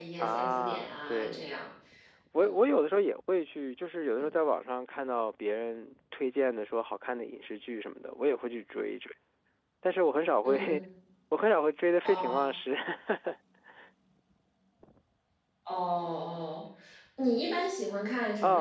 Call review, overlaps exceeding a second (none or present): present